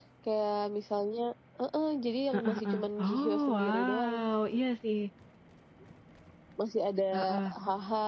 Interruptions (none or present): present